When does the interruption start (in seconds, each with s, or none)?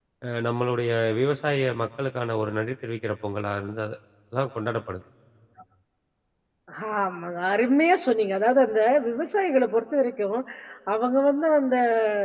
none